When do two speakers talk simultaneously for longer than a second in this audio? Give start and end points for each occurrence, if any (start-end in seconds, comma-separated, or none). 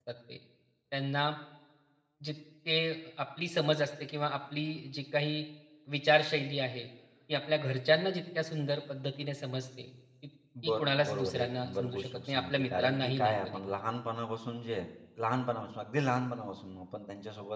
10.6-13.6